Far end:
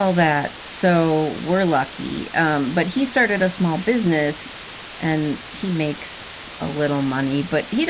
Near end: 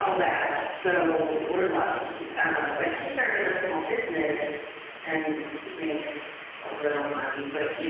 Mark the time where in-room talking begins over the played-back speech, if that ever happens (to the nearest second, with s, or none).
none